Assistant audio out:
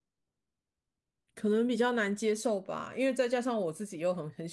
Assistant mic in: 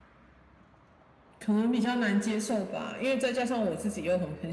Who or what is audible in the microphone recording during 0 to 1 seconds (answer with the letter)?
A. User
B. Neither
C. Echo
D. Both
B